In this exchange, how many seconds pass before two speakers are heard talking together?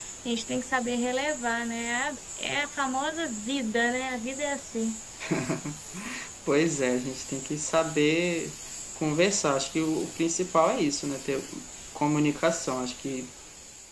none

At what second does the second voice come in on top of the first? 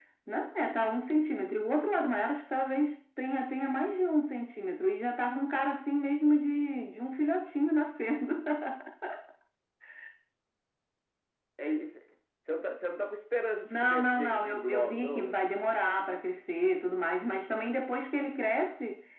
13.6 s

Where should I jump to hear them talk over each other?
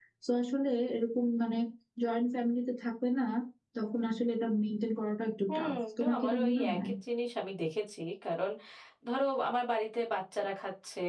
5.5 s

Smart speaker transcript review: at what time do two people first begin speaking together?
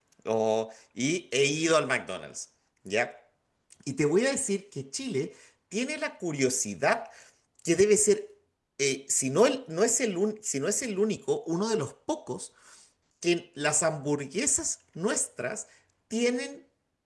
none

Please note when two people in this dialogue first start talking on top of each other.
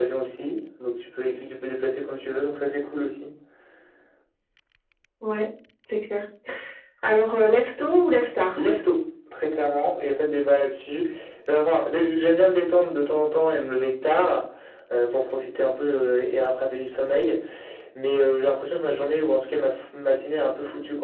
none

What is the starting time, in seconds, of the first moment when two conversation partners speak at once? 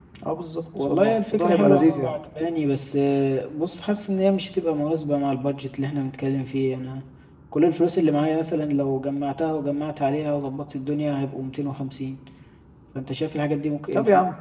0.9 s

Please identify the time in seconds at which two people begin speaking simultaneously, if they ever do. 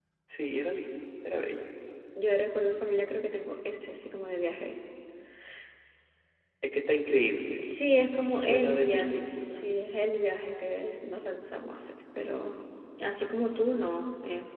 8.3 s

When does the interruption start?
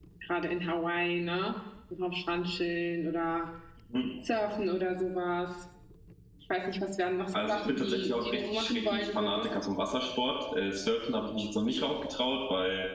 7.3 s

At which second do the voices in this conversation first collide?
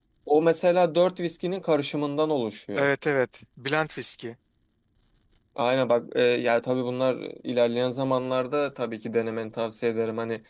none

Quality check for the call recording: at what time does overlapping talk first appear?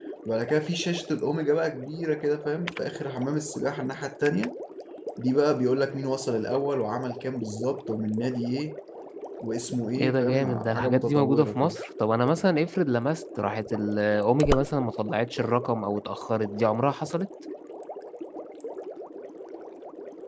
10.0 s

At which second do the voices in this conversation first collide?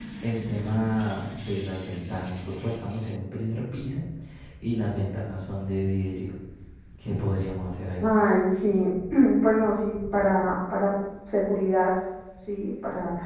none

